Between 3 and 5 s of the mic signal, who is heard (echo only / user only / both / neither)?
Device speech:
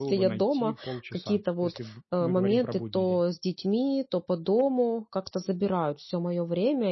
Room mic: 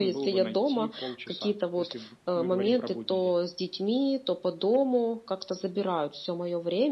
echo only